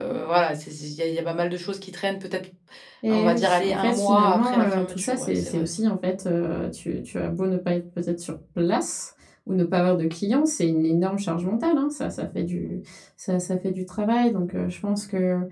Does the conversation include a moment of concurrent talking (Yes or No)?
Yes